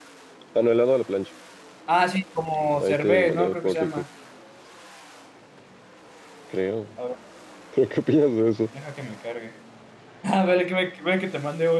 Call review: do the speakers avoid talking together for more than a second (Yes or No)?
No